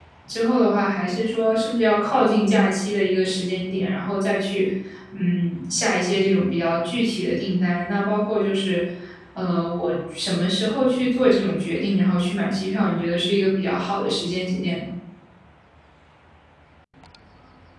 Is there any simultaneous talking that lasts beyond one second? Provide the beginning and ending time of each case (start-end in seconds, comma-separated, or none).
none